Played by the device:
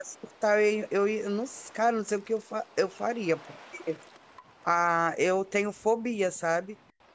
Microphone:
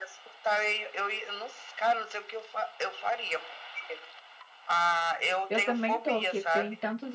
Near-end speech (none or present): present